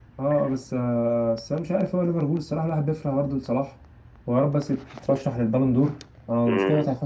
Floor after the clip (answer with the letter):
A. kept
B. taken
B